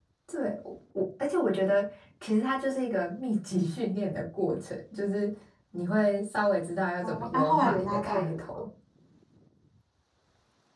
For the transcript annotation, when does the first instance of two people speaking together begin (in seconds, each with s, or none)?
7.0 s